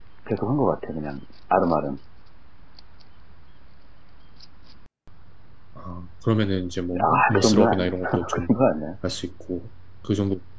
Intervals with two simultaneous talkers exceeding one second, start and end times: 7.0-8.5

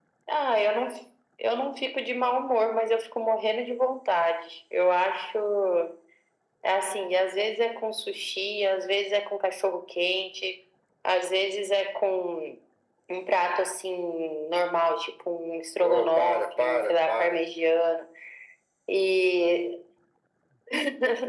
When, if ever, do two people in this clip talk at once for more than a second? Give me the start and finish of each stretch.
15.8-17.4

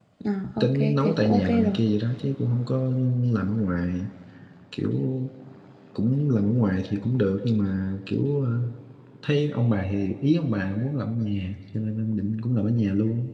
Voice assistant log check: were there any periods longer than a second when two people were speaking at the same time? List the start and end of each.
0.6-1.8

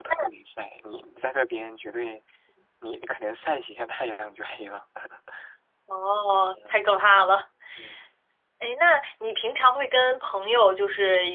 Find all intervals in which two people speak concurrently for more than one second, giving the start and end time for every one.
none

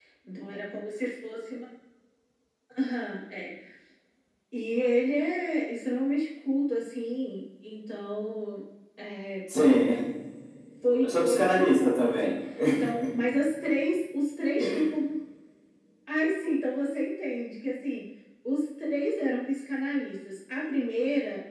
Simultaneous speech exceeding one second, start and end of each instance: 11.0-12.3

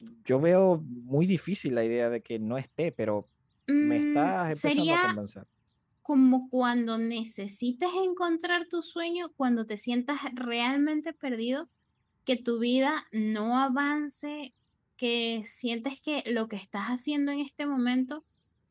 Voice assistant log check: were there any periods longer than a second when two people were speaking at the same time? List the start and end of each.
3.8-5.0

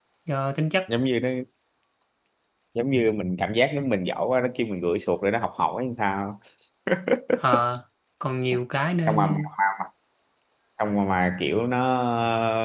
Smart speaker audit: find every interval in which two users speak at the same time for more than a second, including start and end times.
none

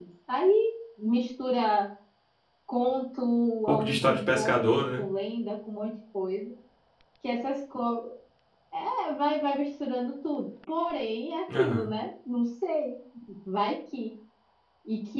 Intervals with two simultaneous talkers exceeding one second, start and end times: 3.7-5.0

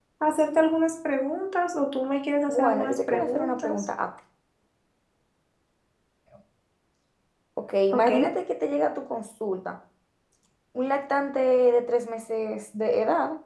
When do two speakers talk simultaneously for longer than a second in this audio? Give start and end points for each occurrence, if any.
2.5-3.9

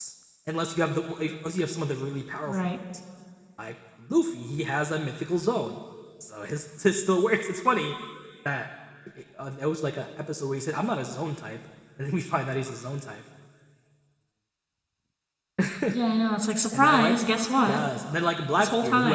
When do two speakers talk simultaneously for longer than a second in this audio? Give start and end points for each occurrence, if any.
none

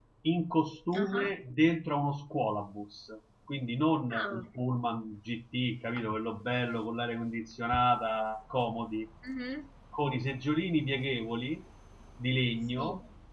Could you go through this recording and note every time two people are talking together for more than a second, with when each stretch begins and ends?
none

